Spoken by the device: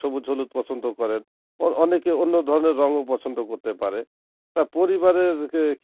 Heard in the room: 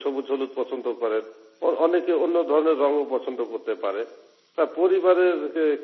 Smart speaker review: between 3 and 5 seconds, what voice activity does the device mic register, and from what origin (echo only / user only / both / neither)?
echo only